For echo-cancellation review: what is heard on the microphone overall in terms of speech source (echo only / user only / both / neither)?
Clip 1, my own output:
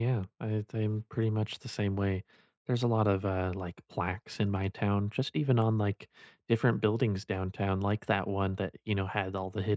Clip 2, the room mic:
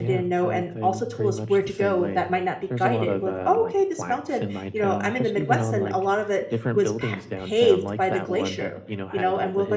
both